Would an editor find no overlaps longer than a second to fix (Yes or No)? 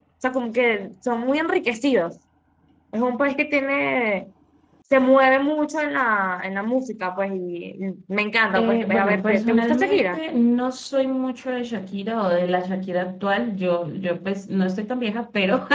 No